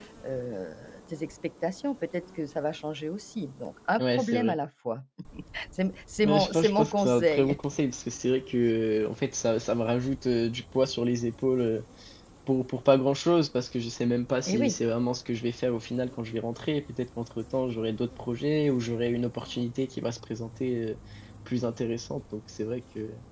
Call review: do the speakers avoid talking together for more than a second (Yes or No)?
No